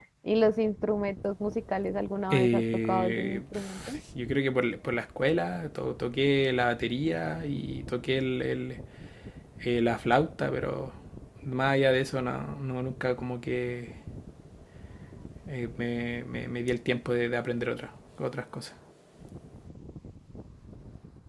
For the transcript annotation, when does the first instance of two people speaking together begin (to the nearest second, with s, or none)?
2 s